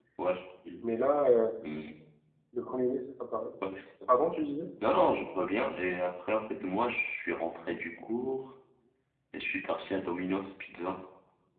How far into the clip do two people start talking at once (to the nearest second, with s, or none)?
none